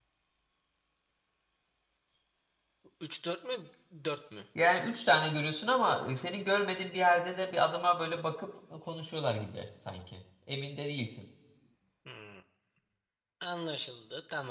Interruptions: none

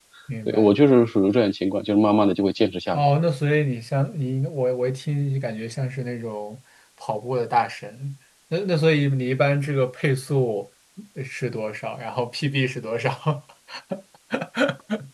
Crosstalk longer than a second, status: none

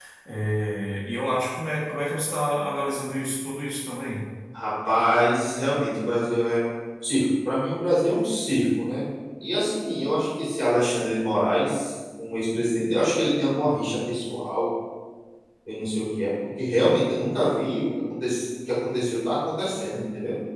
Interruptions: none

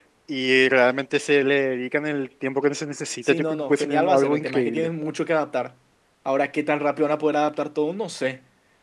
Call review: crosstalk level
present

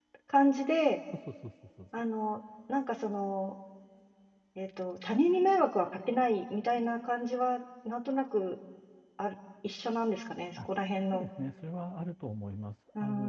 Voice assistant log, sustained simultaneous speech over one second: none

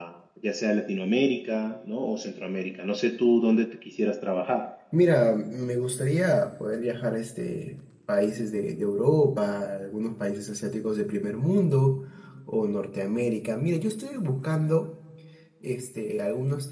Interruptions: none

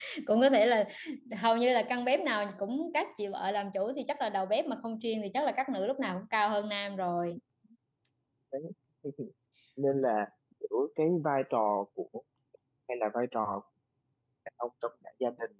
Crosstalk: none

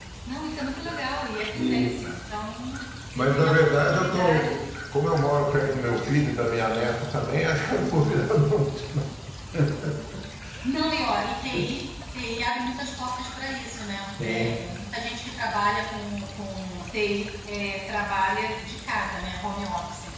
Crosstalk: present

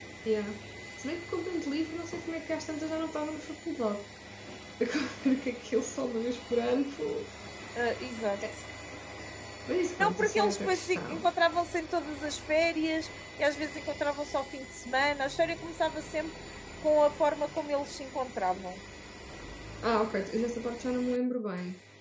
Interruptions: present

